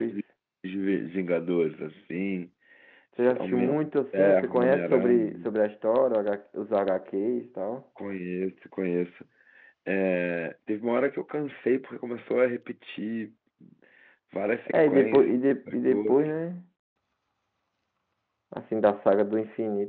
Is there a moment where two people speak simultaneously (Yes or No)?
Yes